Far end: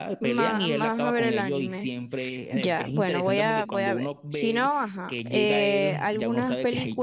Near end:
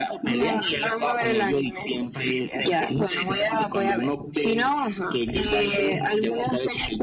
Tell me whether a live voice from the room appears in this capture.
No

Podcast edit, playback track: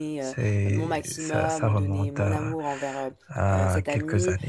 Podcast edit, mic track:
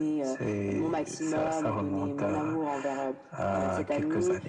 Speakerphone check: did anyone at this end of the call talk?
No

